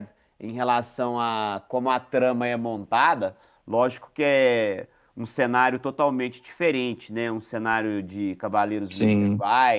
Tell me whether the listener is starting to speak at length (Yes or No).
No